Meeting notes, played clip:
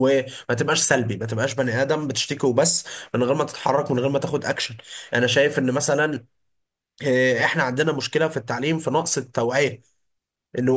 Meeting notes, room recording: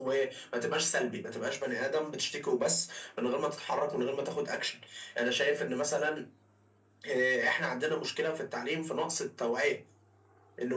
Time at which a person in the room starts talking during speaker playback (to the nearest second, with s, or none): none